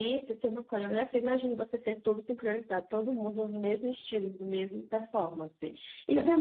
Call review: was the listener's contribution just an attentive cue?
Yes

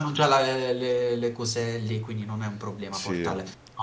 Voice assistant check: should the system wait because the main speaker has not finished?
Yes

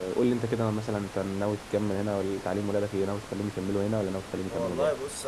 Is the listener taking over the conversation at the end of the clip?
Yes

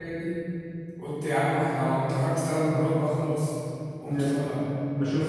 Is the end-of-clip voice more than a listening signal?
Yes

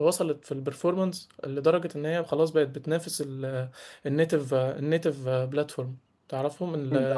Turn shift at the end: No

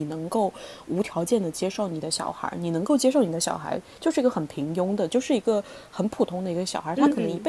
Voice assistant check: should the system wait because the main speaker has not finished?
Yes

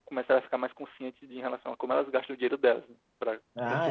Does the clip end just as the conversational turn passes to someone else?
No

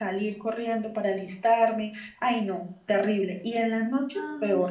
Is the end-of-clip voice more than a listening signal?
Yes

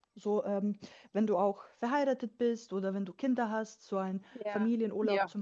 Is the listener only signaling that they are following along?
No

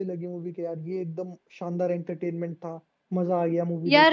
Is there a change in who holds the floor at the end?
Yes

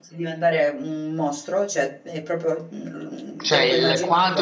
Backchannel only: No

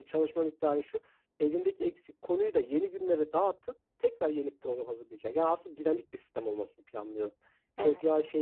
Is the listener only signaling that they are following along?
Yes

